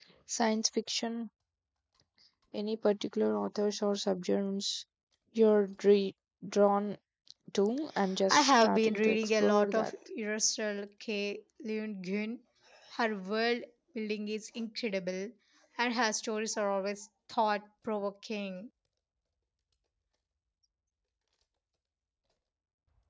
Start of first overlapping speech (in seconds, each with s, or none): 8.3 s